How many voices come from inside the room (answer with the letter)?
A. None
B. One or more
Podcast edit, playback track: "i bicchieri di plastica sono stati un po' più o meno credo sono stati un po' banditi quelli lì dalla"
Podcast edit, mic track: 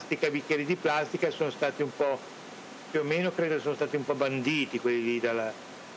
A